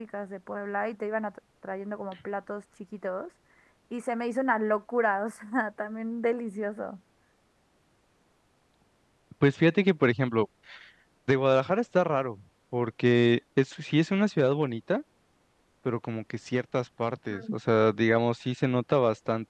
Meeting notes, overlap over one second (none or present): none